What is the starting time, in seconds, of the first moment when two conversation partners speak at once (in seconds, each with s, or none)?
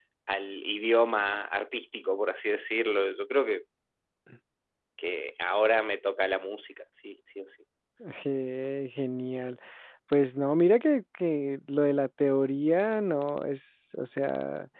none